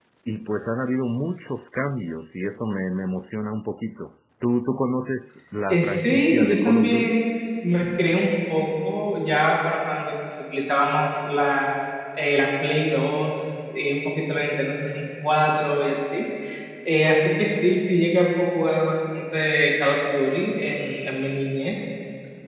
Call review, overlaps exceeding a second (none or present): present